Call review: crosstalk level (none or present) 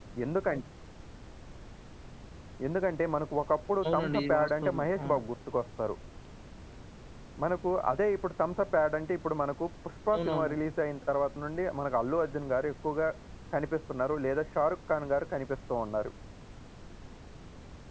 present